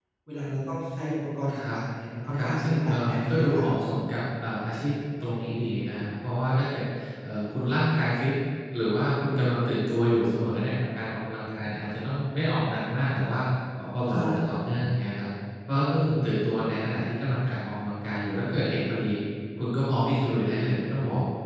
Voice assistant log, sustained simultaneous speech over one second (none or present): present